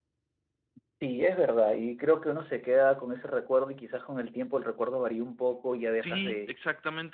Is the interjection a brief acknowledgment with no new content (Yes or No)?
No